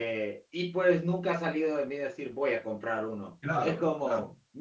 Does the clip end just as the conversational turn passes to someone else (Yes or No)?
No